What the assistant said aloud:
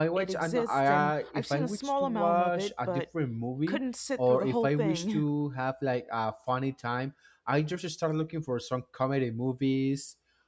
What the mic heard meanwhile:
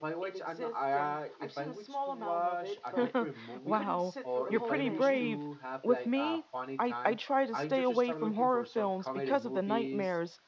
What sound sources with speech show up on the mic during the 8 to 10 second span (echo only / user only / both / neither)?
both